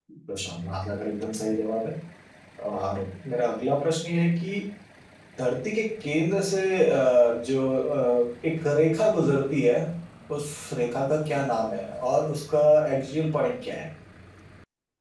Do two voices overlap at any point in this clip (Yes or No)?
No